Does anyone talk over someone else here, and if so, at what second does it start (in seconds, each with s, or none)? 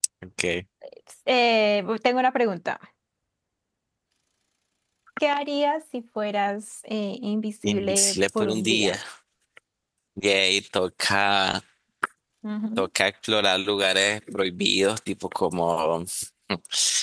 7.6 s